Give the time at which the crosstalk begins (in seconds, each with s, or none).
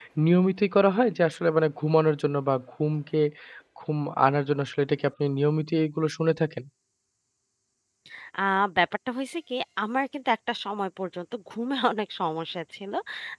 none